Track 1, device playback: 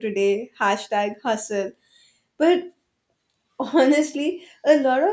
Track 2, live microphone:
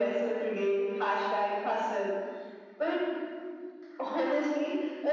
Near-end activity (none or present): none